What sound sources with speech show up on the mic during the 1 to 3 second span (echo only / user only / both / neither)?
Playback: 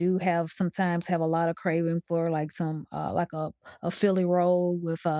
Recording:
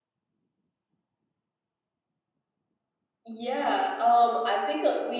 neither